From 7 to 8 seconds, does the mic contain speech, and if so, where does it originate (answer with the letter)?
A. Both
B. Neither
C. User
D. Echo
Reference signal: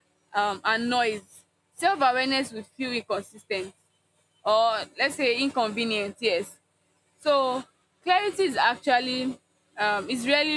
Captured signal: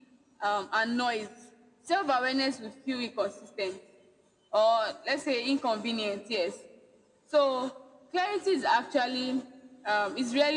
D